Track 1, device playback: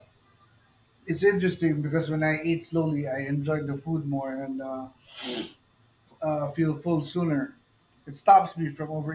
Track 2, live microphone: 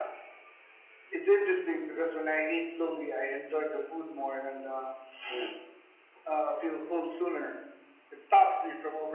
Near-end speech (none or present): none